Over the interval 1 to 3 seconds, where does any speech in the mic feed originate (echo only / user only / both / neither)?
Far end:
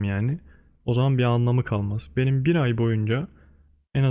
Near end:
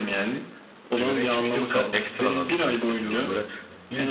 both